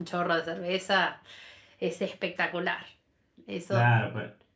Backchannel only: No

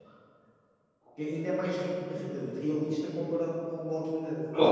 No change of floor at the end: No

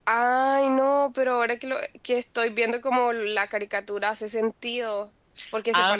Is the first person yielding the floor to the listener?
Yes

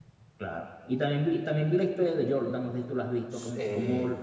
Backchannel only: Yes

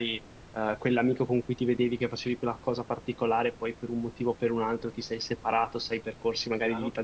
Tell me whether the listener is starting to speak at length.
No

